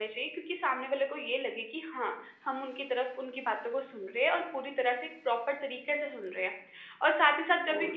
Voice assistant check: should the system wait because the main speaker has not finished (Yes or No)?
Yes